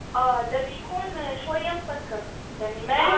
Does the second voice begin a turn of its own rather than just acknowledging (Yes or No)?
Yes